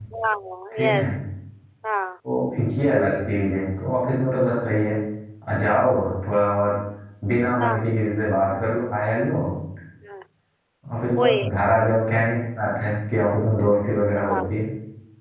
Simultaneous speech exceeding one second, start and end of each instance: none

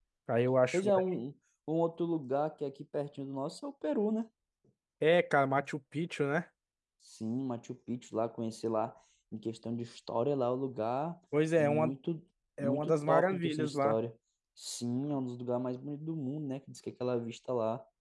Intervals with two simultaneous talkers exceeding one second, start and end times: 12.6-14.0

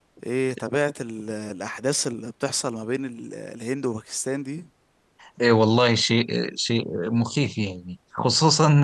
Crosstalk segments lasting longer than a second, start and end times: none

